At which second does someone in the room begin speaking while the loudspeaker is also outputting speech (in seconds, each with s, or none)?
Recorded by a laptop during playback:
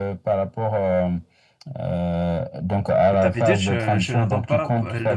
3.2 s